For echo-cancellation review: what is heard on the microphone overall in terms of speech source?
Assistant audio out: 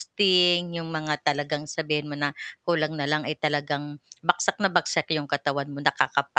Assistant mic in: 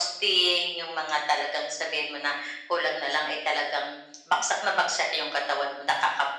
echo only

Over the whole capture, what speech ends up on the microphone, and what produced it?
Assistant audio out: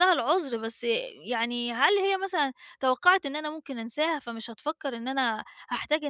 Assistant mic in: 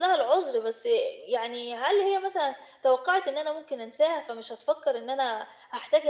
echo only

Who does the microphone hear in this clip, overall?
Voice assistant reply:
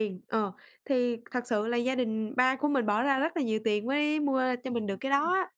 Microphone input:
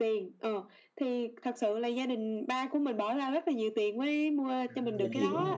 both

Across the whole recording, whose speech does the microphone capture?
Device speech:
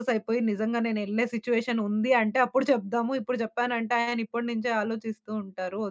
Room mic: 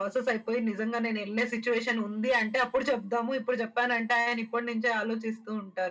echo only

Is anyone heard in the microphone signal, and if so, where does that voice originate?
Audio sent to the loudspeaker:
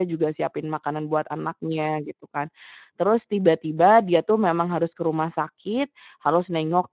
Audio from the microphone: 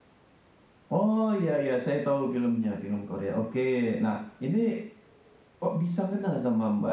user only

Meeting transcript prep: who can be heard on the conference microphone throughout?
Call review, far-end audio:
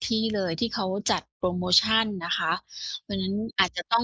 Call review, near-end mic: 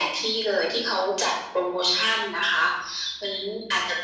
echo only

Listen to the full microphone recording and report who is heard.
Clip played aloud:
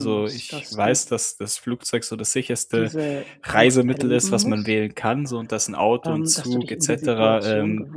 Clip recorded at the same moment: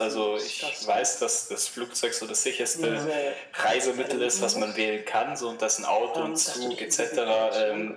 both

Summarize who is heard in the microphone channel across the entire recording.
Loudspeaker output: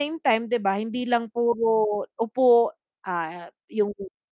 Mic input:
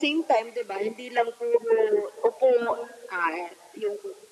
echo only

